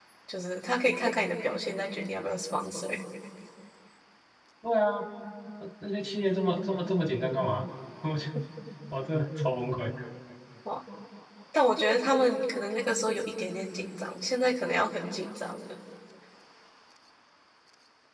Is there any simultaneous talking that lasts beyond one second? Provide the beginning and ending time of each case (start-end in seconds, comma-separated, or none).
none